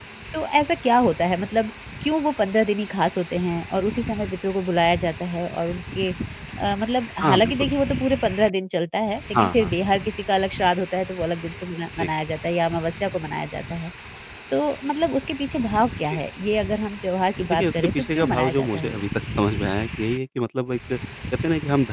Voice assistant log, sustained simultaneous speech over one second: present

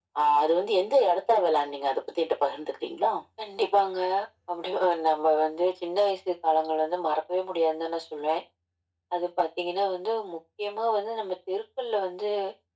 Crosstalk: none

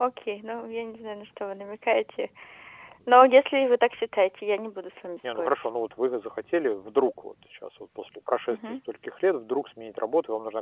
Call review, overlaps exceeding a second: none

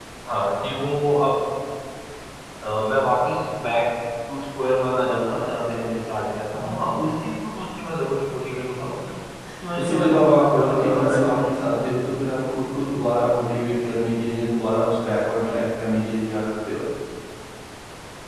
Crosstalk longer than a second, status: present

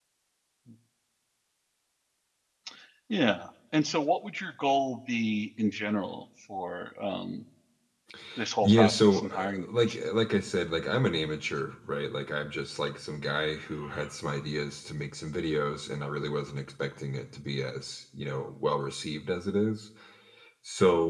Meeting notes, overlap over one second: present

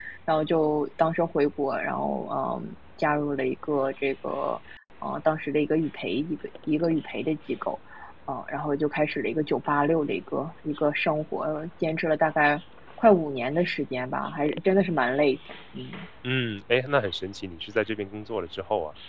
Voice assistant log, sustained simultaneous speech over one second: none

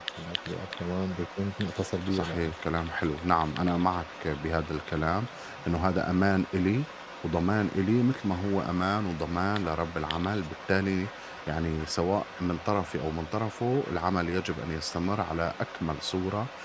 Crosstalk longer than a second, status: none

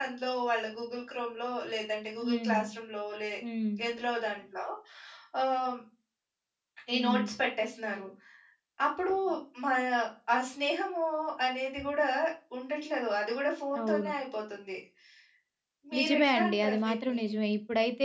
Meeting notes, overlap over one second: present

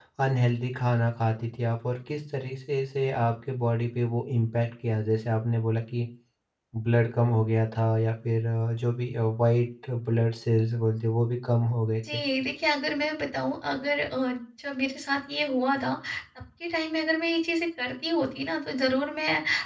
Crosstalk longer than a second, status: none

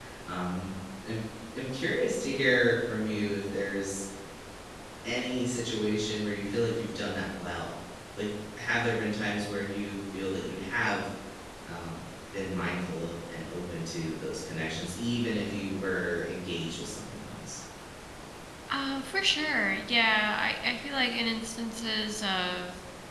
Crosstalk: none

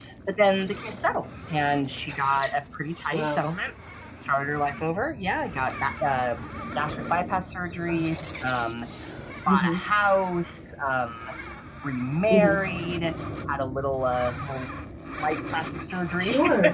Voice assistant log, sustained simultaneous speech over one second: none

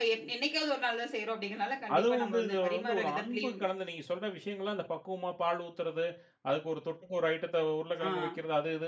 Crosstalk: present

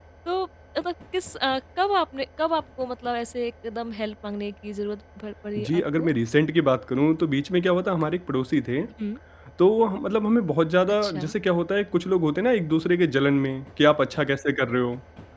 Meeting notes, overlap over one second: none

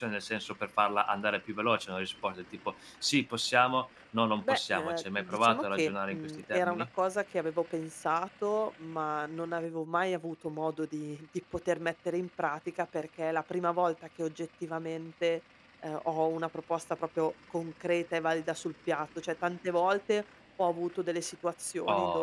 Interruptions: present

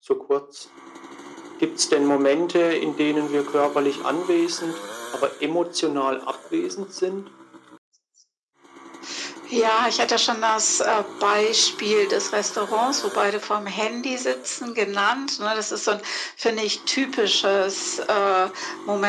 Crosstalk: none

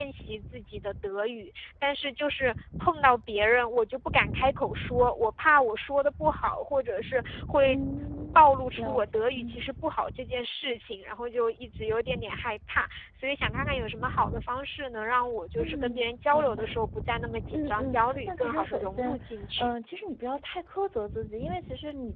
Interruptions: present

